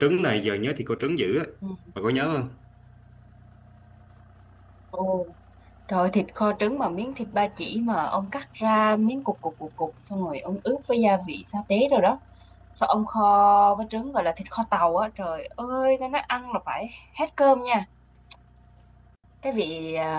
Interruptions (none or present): none